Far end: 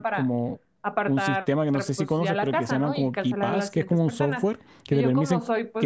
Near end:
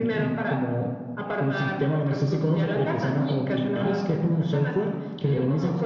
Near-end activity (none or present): none